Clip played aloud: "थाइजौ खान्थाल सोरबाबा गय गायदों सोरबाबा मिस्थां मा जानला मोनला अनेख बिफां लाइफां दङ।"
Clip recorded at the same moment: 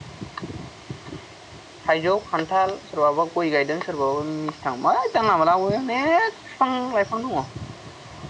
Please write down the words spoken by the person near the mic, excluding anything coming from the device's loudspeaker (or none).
none